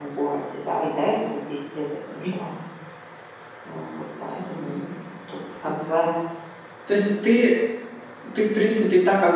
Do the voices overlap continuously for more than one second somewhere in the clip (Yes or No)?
No